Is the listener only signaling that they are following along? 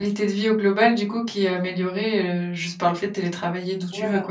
No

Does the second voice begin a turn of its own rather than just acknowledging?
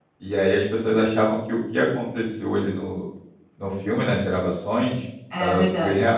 No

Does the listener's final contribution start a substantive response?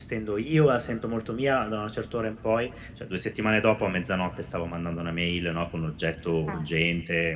No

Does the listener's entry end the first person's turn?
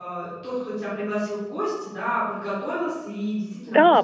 Yes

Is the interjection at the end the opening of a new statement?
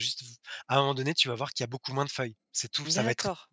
Yes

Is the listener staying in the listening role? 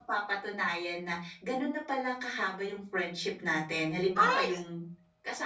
Yes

